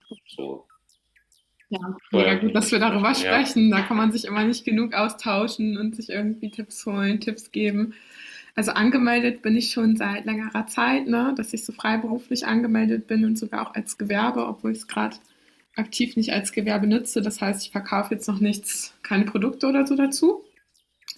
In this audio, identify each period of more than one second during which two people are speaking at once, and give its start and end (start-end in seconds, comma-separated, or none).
2.1-3.4